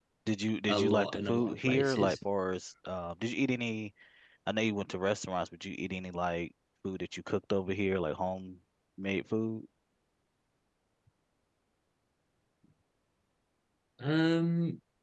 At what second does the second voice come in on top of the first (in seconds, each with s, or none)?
0.7 s